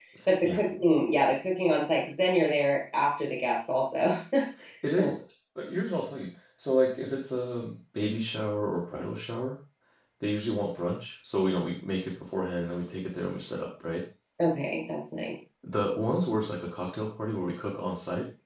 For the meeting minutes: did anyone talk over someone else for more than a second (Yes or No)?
No